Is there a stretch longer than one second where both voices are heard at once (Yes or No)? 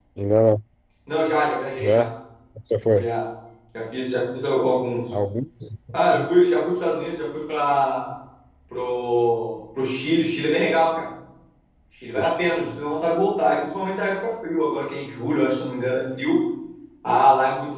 No